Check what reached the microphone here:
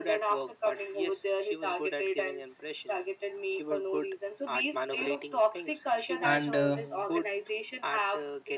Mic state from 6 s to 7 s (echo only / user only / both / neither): both